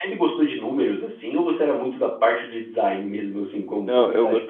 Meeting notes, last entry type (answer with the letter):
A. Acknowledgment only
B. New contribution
B